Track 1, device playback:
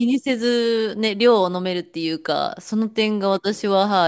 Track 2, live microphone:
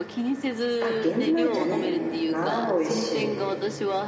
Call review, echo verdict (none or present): present